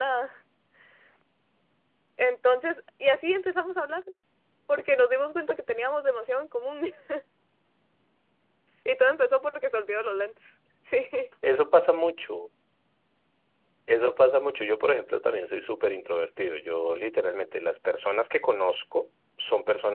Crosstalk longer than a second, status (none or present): none